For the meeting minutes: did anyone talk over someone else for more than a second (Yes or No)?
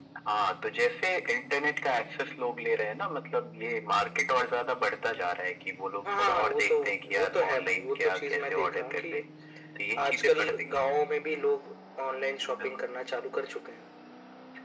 Yes